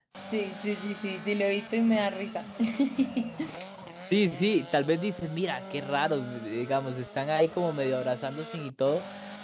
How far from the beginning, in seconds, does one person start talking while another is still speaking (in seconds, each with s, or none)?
none